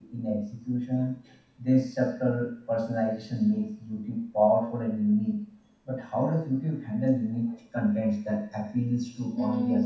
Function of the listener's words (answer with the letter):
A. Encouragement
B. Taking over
B